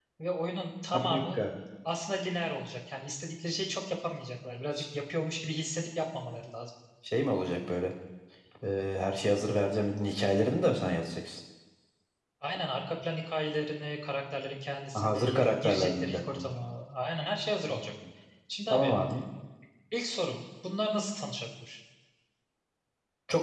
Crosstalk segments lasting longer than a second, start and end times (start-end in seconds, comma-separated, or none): 14.9-16.5